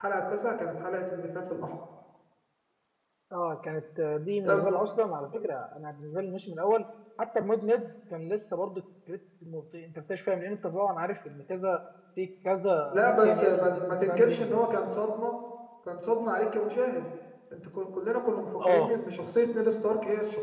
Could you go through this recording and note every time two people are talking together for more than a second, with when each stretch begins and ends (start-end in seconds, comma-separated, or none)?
12.9-14.9